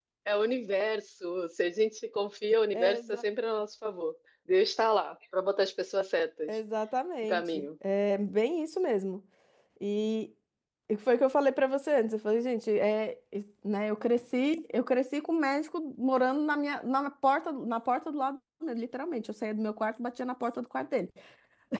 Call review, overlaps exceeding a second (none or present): none